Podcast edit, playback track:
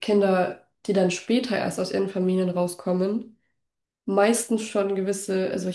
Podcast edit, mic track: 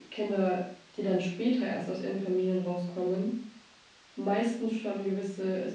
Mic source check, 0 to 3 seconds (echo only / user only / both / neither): echo only